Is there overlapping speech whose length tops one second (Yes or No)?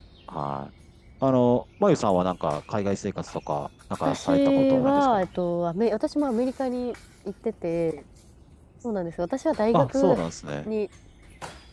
Yes